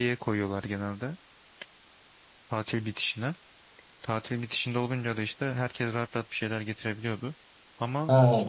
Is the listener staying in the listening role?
No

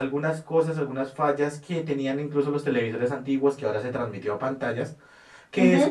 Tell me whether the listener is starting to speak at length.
No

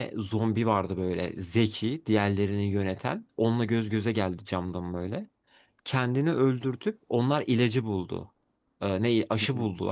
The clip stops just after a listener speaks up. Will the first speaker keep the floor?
Yes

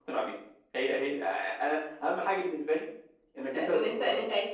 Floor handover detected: Yes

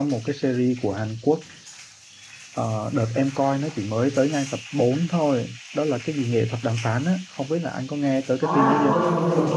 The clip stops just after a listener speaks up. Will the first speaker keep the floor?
No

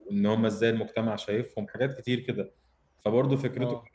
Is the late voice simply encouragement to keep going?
Yes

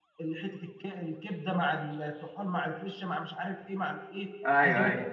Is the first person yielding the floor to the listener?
No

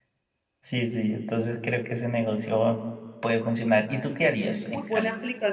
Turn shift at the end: Yes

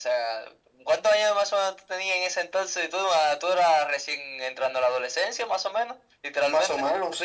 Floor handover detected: Yes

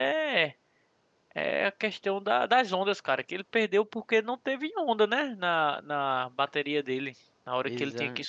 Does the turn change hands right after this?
No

